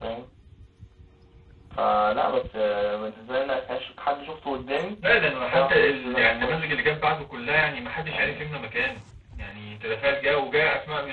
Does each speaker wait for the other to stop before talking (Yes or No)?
No